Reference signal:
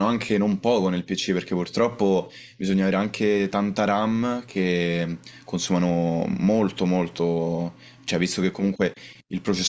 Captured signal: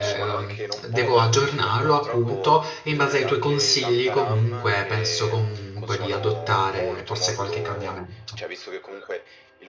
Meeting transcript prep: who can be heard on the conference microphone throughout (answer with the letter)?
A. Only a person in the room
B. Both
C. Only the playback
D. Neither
B